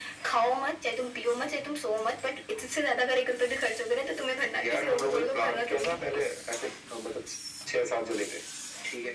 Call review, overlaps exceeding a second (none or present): present